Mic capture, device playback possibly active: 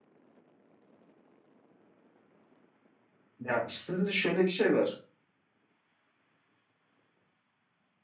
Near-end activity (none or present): present